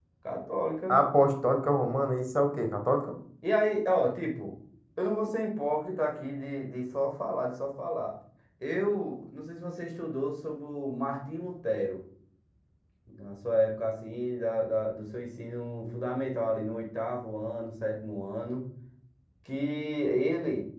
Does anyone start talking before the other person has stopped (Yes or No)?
No